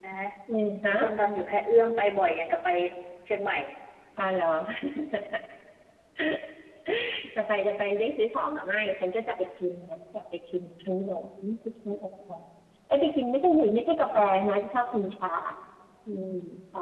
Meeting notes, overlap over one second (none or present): none